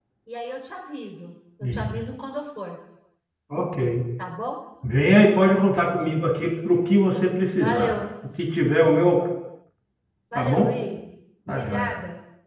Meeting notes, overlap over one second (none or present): none